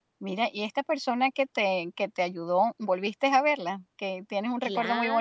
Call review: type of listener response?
taking over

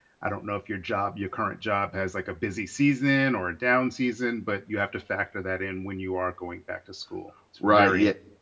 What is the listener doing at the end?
taking over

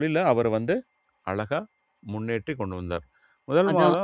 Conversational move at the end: listening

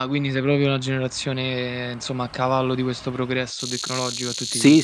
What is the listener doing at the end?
taking over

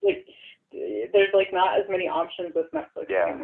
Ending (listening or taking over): taking over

